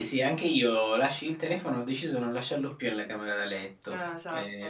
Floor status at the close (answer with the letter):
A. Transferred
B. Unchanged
B